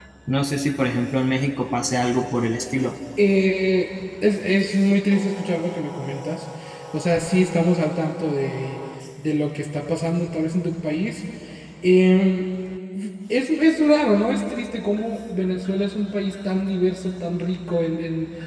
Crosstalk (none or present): none